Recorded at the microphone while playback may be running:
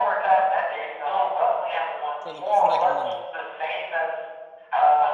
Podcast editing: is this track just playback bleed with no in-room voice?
No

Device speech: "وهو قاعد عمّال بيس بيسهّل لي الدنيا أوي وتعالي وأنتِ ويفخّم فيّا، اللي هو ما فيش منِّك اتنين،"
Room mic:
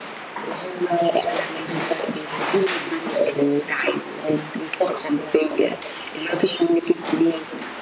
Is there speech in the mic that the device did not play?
No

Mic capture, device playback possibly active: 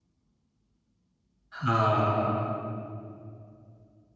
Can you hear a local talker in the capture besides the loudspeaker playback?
Yes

